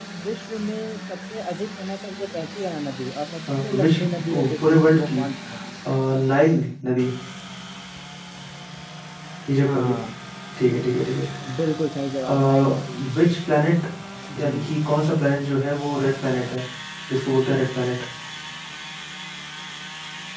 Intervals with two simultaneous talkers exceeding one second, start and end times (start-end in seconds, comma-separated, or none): 3.6-5.2